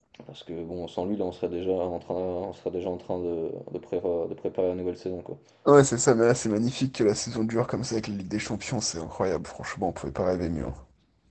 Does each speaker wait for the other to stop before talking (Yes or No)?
Yes